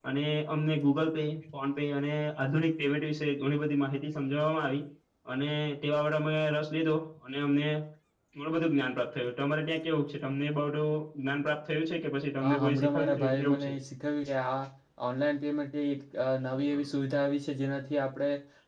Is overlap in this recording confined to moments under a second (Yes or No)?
No